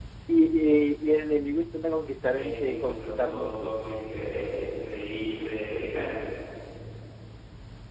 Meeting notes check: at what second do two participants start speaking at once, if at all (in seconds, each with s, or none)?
2.4 s